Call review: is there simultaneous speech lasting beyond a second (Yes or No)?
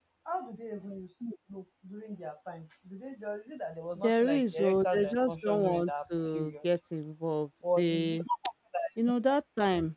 Yes